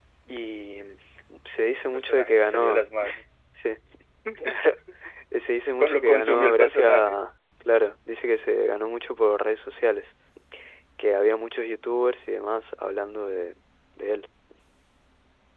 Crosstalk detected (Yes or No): Yes